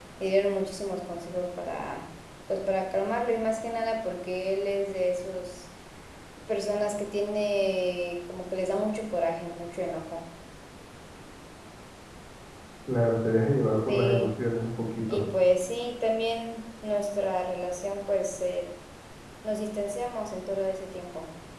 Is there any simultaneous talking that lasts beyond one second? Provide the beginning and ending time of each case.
none

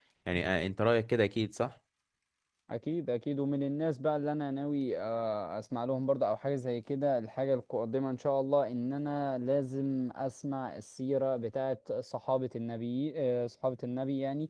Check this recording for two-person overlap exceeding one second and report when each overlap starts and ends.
none

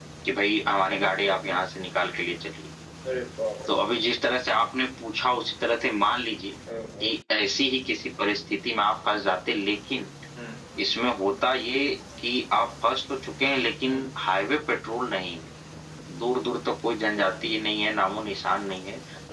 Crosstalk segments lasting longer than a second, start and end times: none

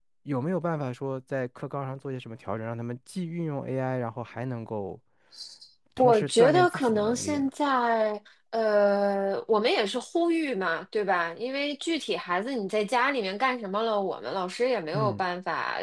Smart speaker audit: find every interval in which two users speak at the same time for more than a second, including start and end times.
6.0-7.5

